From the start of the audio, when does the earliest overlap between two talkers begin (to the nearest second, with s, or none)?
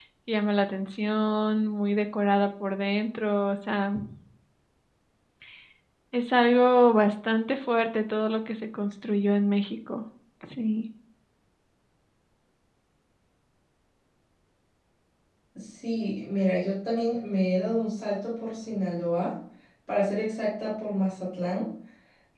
none